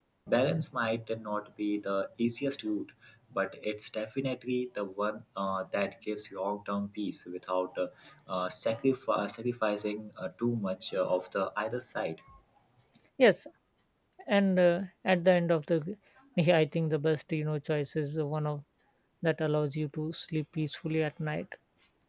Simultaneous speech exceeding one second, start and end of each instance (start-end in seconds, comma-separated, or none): none